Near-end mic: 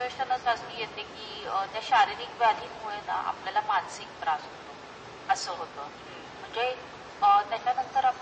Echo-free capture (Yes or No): No